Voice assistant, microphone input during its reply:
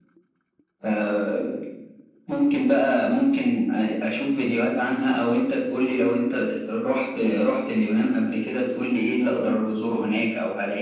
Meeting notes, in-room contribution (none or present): none